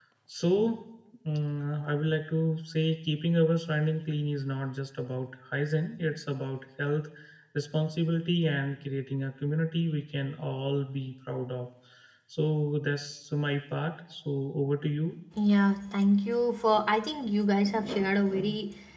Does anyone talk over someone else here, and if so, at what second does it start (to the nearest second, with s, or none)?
none